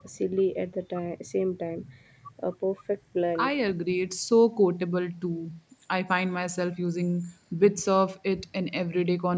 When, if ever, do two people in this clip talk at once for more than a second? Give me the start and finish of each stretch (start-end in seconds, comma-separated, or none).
none